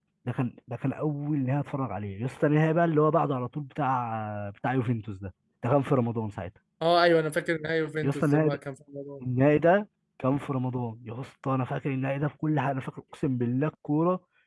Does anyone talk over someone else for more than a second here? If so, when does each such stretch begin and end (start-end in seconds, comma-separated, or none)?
none